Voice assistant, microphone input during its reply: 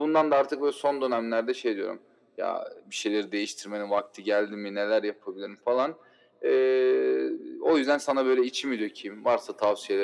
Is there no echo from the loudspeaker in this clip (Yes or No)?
No